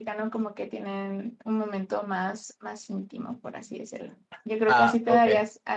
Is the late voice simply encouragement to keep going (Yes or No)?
Yes